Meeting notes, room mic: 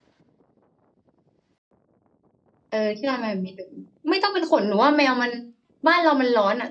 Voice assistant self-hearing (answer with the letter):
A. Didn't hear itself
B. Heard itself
A